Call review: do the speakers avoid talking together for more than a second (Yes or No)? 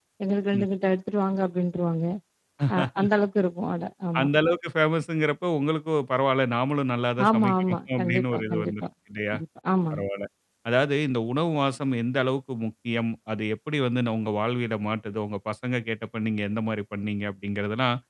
No